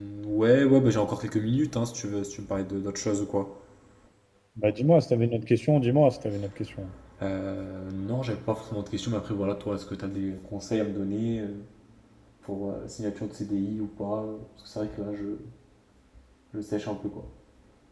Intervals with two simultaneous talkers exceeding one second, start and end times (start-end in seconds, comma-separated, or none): none